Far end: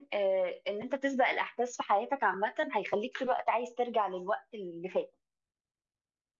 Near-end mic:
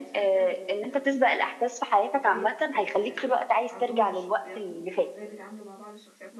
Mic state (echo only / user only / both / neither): both